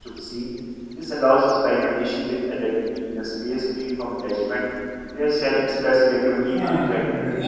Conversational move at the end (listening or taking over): taking over